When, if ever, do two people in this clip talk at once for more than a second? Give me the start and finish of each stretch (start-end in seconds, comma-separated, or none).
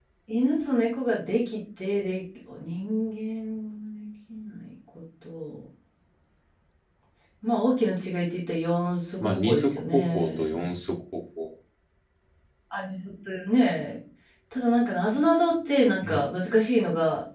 9.2-10.6